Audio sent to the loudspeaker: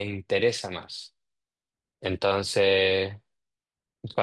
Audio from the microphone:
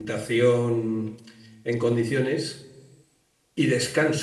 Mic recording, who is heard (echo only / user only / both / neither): user only